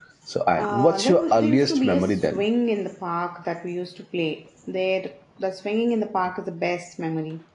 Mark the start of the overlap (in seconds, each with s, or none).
0.6 s